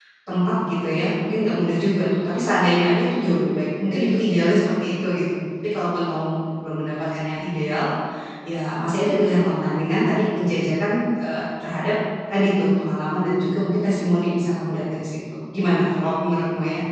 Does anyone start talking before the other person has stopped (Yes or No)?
No